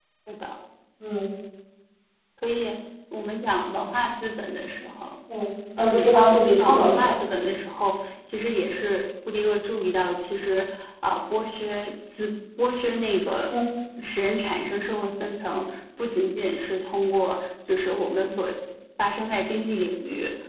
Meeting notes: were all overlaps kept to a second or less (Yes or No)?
No